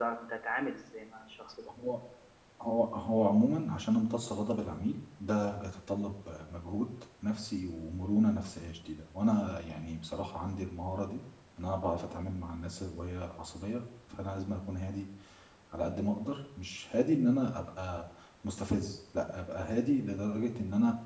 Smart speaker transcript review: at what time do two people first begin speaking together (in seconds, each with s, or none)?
none